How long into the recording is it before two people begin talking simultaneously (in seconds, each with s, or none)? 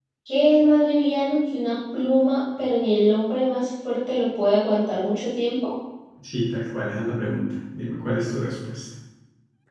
none